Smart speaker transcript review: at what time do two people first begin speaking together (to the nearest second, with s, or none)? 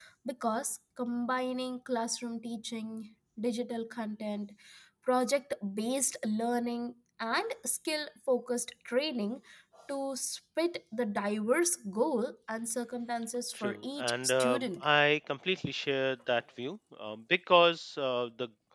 14 s